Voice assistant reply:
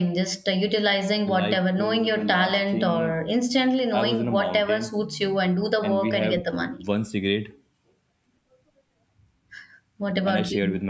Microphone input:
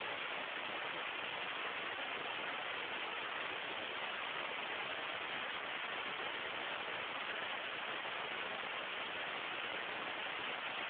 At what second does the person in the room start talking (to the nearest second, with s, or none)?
none